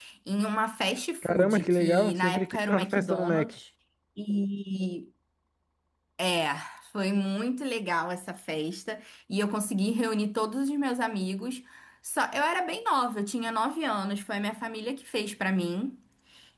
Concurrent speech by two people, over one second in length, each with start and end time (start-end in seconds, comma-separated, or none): 1.2-3.5